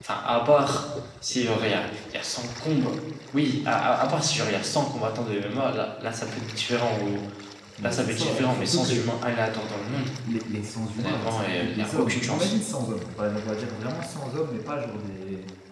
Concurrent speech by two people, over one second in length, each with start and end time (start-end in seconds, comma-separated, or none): 7.8-9.0, 11.0-12.5